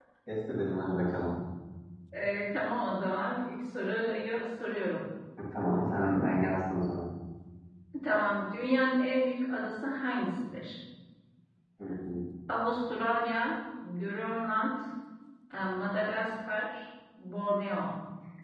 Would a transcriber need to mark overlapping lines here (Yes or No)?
No